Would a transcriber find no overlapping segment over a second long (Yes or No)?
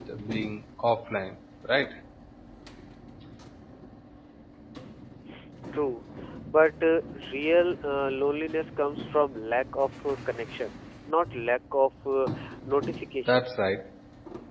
Yes